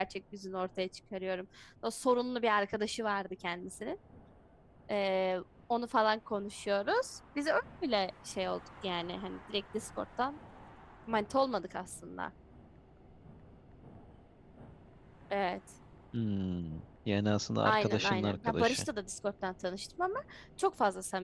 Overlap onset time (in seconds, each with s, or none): 17.6 s